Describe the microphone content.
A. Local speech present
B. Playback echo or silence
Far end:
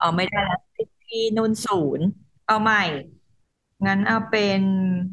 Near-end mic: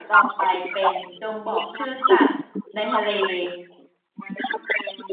A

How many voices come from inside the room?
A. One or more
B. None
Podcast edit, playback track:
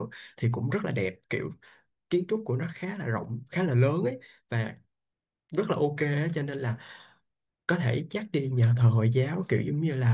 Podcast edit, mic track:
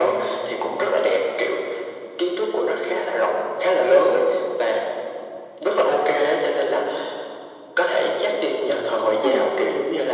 A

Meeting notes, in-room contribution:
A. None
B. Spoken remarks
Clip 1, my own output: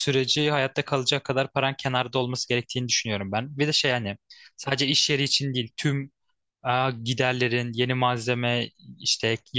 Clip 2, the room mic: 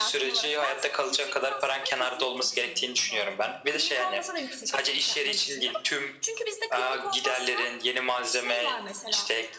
B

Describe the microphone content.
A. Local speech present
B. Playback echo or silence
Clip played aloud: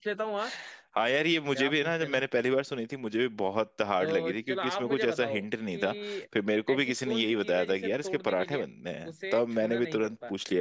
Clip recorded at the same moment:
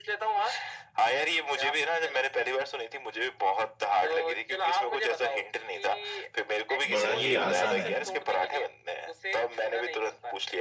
A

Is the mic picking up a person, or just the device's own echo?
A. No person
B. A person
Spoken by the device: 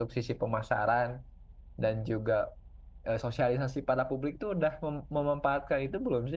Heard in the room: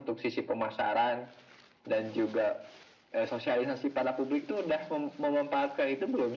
A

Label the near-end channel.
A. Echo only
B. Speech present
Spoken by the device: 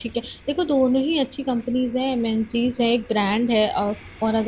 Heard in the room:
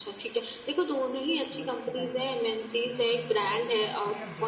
B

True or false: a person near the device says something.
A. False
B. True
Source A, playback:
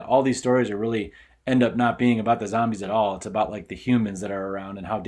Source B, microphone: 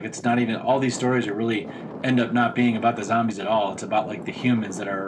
A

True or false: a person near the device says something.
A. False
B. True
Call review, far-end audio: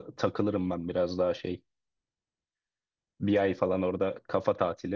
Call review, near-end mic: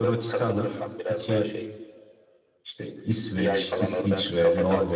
B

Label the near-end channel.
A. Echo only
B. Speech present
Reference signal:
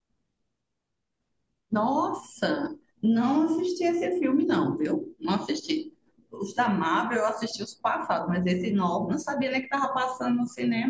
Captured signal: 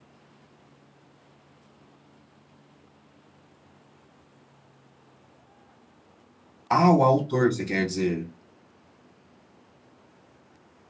B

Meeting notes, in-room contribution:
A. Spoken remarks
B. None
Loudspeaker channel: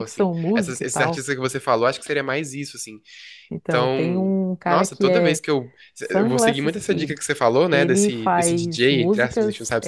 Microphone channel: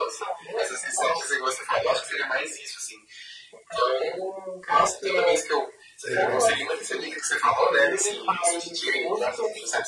A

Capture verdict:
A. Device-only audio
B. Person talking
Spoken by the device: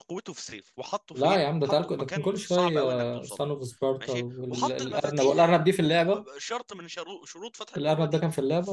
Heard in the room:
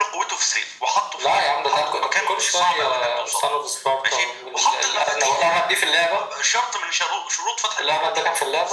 A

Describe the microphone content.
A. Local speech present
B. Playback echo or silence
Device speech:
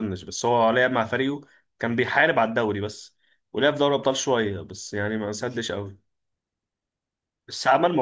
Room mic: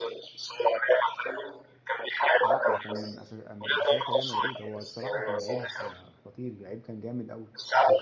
A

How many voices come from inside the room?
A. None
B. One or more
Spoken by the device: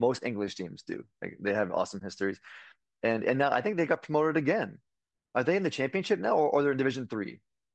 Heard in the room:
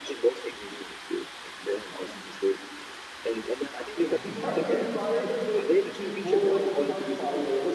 B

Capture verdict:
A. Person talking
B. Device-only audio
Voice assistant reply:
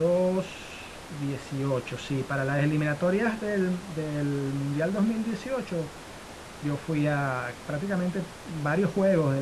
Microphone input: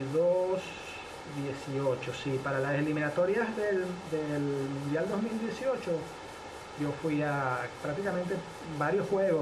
B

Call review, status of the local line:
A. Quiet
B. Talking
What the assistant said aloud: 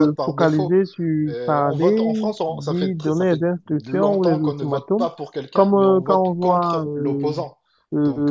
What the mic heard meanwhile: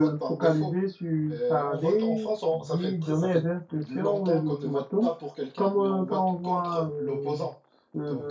A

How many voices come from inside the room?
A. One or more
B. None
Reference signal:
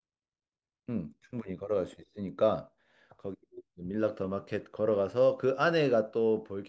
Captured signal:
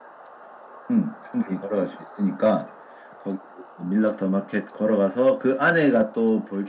B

